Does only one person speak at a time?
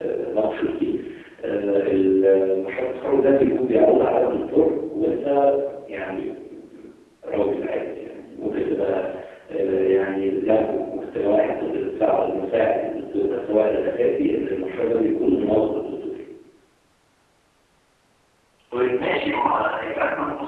Yes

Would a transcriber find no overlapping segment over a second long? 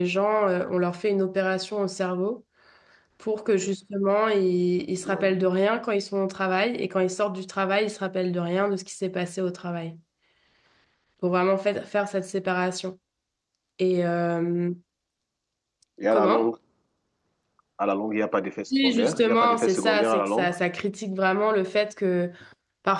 No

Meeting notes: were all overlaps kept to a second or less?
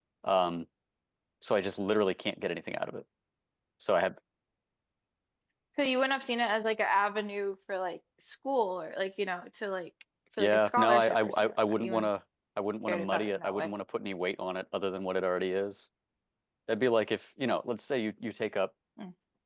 No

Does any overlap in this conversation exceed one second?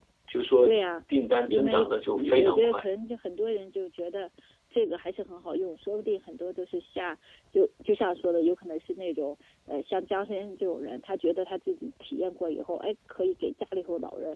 Yes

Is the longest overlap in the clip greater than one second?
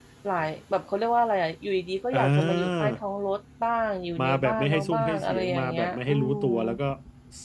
Yes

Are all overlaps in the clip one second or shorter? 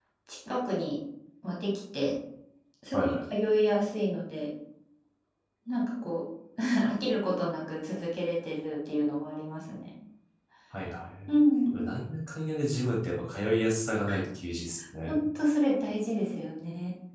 Yes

